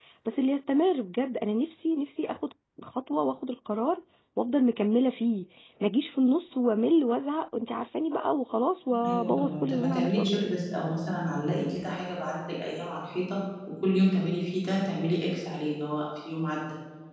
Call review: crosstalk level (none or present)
present